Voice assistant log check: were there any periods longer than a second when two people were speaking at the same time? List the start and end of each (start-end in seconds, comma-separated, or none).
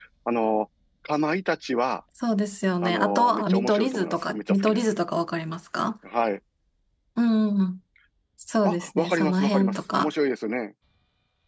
2.8-4.8, 8.6-10.1